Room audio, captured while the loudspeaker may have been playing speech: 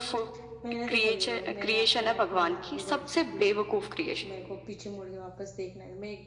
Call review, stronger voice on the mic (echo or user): echo